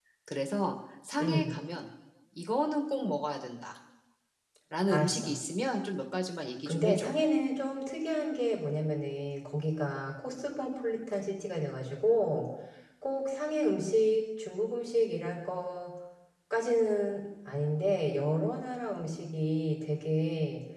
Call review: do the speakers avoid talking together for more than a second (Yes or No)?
Yes